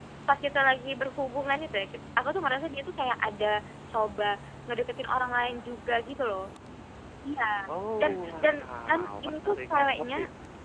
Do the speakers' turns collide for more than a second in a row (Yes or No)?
Yes